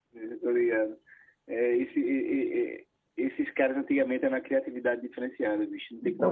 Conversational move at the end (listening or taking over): taking over